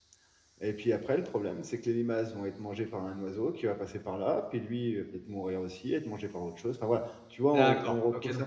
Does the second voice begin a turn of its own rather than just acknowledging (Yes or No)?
Yes